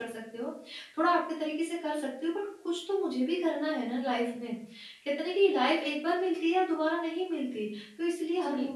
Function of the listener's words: listening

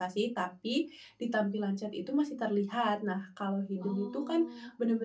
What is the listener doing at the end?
listening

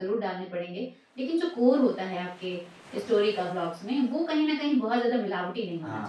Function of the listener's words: taking over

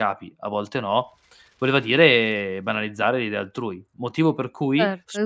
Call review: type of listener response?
taking over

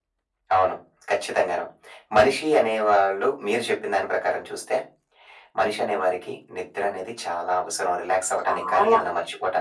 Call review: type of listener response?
listening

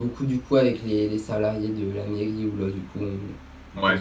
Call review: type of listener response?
listening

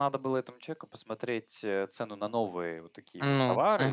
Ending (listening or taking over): listening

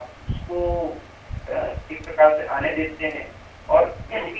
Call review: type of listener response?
listening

